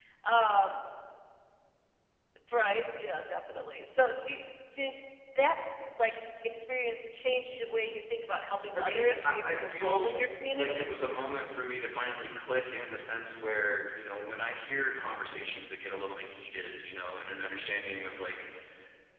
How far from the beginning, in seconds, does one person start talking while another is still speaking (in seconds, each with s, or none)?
8.8 s